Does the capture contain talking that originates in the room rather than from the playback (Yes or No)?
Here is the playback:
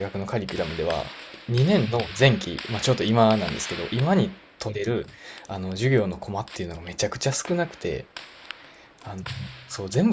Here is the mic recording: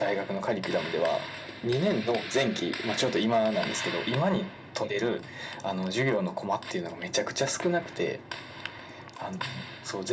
No